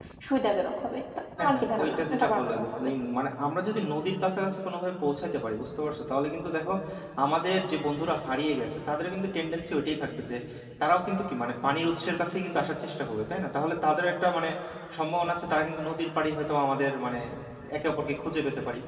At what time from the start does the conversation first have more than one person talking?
1 s

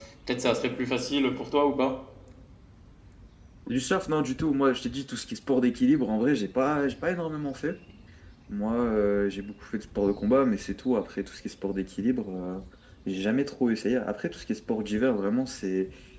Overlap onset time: none

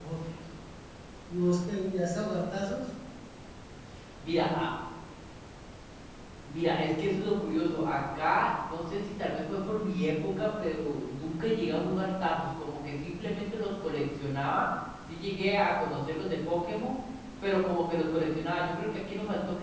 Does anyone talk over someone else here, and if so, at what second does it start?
none

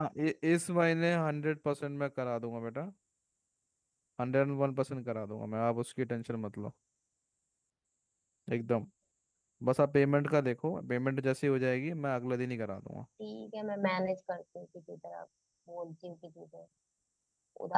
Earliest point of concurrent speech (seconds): none

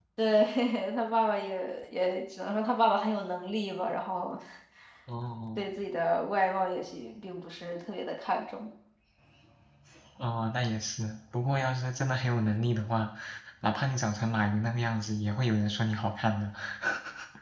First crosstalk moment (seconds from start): none

